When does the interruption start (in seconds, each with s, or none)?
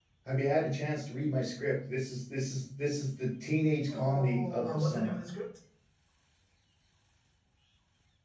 3.9 s